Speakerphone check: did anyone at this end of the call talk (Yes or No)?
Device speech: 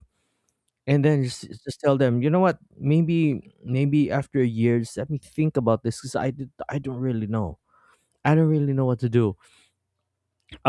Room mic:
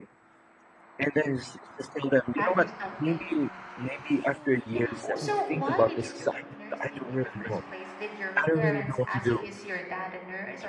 Yes